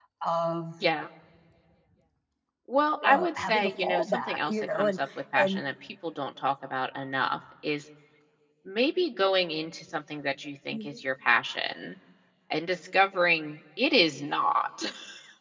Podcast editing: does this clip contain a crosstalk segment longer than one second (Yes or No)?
Yes